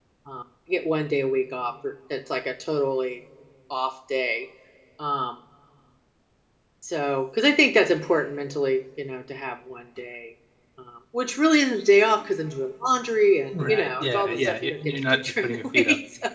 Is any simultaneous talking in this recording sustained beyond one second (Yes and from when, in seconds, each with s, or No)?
Yes, from 13.5 s